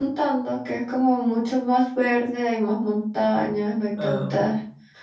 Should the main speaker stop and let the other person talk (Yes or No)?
No